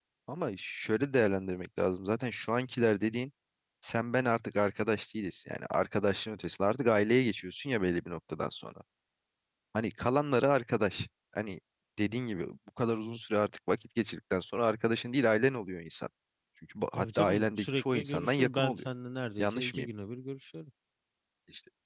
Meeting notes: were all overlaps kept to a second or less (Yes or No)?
No